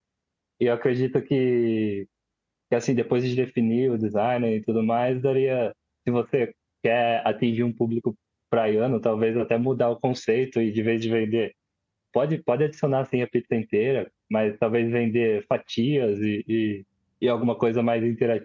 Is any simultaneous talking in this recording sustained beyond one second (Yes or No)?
No